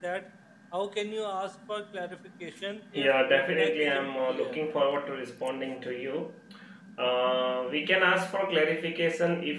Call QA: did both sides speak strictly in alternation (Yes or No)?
No